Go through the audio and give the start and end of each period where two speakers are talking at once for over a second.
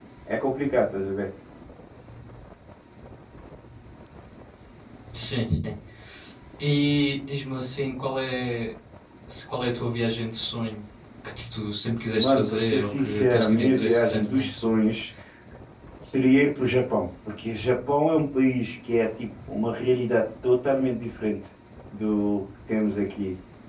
12.2-14.5

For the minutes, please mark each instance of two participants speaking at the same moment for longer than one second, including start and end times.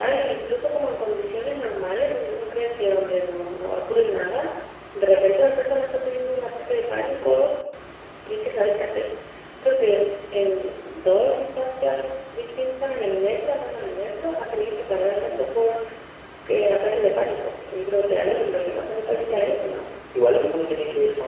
18.2-19.6

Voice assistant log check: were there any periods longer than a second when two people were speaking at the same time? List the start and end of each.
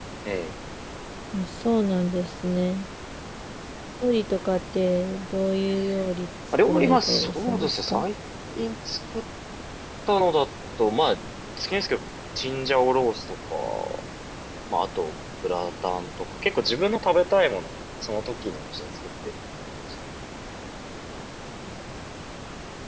6.7-8.0

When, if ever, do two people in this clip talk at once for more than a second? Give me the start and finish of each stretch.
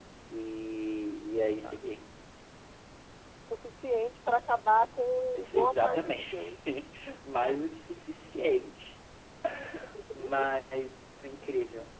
5.3-6.5

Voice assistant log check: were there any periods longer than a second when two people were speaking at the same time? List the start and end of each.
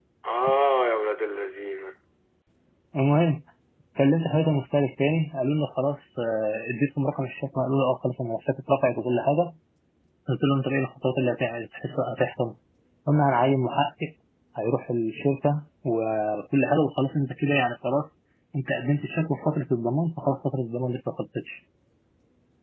none

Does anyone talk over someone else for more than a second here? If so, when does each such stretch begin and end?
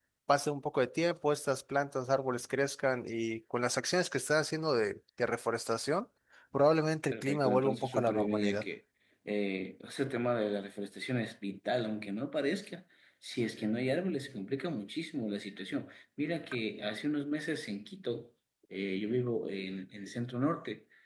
7.1-8.6

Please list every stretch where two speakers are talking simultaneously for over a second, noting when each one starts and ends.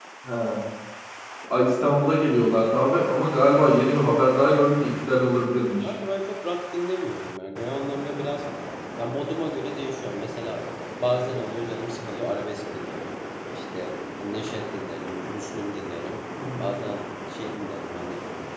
none

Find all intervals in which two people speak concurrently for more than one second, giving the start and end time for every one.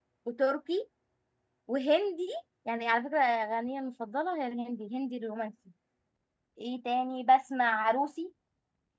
none

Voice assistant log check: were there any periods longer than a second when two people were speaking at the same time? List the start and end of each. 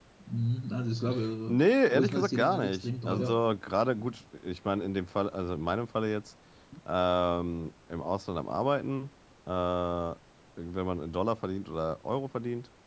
1.5-3.4

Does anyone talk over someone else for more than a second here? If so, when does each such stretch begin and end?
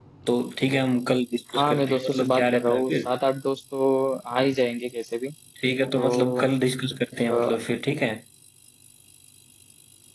1.6-3.1

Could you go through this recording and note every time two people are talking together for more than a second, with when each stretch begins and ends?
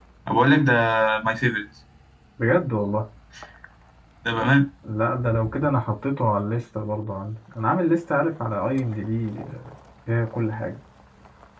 none

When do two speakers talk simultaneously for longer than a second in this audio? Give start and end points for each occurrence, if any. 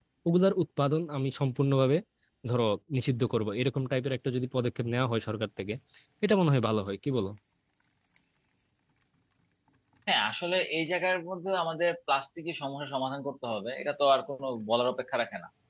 none

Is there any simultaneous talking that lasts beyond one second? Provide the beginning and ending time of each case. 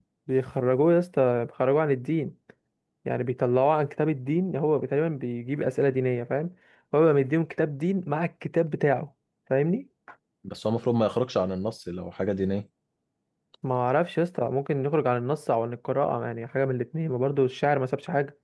none

